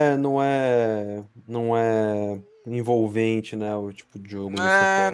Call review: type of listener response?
taking over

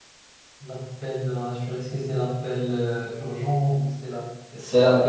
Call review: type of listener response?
taking over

